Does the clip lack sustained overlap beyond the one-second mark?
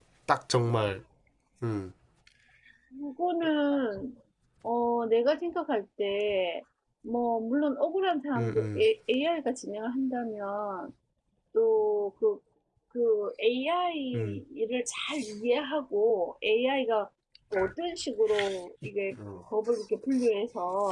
Yes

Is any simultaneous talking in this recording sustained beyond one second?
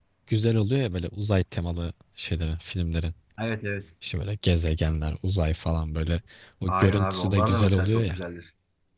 Yes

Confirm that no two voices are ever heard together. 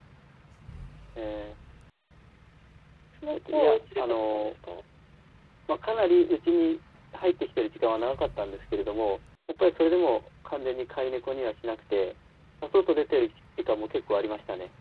No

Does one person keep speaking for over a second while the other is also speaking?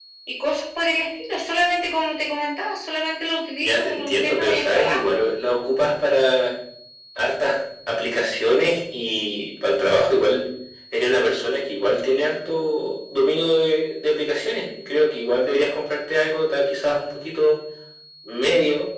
Yes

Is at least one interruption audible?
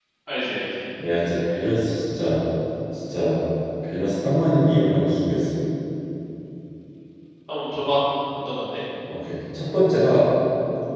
No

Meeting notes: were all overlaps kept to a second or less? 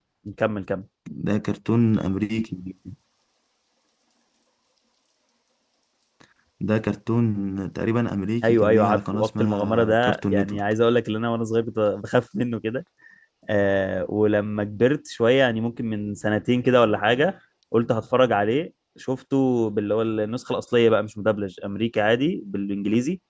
No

